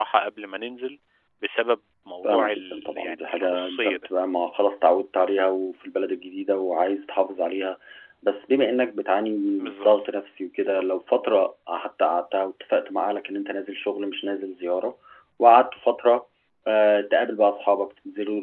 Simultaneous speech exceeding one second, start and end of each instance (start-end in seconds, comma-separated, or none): 2.2-4.1